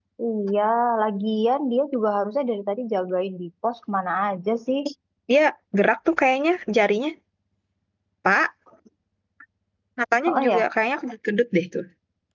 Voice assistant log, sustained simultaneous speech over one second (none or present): none